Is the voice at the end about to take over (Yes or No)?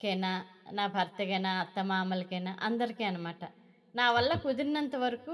No